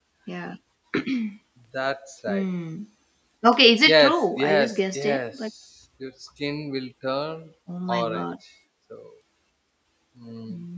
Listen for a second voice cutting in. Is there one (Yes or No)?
Yes